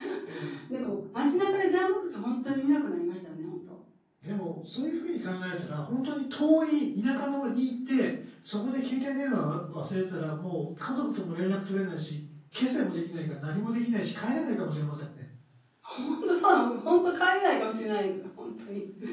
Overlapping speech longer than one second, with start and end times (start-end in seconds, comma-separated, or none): none